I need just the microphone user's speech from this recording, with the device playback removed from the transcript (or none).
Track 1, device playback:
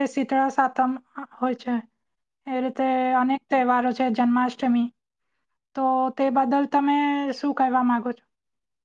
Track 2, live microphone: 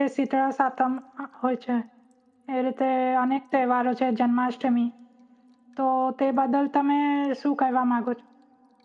none